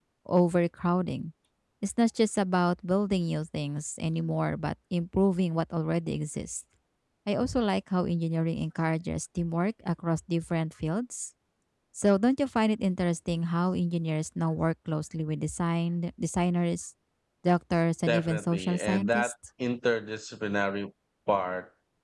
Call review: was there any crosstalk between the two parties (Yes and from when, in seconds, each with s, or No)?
Yes, from 18.1 s